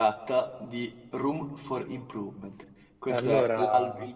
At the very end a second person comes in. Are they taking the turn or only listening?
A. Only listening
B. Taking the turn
A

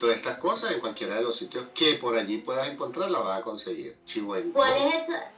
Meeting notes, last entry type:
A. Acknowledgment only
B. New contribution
B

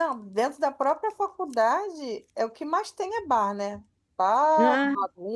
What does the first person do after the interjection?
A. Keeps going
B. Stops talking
A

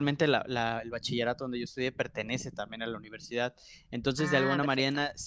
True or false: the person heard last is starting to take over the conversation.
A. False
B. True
A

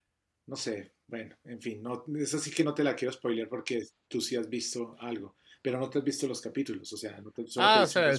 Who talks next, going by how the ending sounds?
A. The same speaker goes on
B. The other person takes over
B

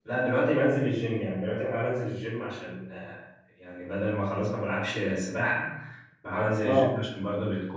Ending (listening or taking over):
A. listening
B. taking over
A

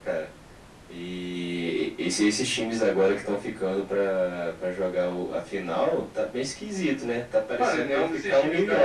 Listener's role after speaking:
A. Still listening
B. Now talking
B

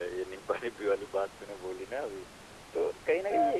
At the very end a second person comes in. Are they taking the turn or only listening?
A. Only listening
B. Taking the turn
A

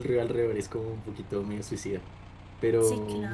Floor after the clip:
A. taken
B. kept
A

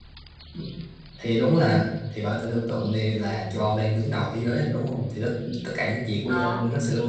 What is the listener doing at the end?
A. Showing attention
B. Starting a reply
A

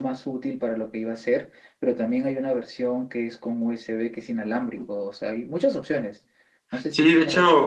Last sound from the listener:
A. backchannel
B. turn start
B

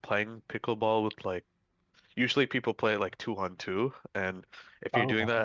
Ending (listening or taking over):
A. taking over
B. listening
B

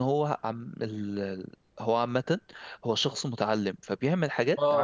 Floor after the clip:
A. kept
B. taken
B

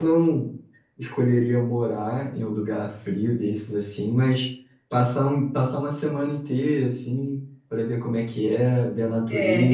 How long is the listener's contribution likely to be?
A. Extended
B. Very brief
A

